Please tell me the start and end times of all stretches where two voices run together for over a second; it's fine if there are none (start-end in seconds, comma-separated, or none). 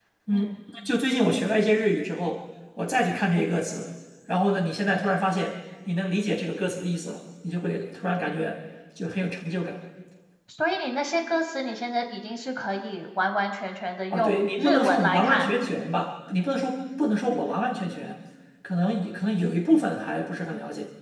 14.1-15.5